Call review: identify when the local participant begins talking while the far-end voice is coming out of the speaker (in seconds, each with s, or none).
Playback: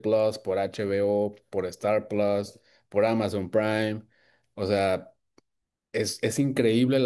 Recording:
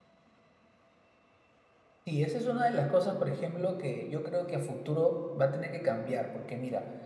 2.1 s